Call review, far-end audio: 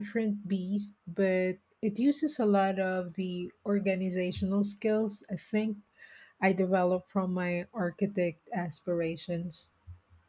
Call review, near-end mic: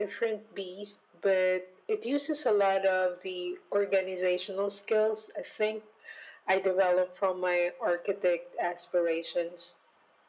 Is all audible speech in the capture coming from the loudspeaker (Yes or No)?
Yes